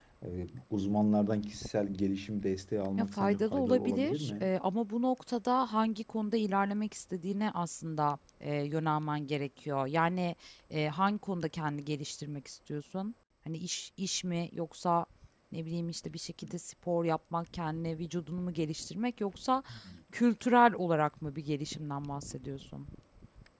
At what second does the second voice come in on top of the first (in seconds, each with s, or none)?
3.0 s